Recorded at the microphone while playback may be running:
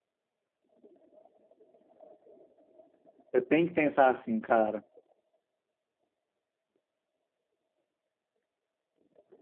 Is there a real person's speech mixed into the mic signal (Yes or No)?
Yes